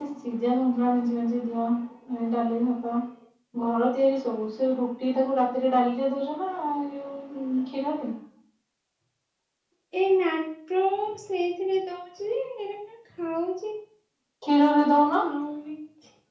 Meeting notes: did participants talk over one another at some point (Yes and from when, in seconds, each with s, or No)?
No